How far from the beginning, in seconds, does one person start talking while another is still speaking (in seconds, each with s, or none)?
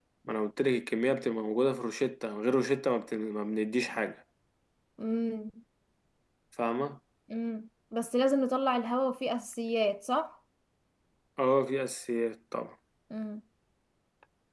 none